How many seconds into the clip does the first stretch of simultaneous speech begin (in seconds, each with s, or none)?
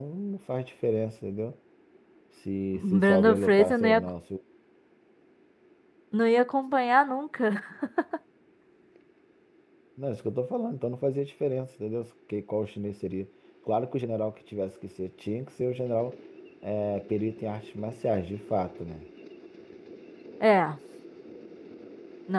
2.7 s